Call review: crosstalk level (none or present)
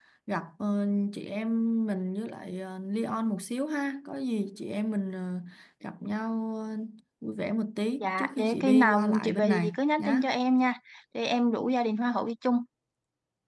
present